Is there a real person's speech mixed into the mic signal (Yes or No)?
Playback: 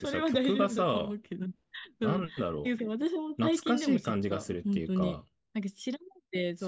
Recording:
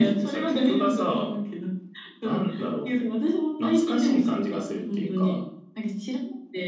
No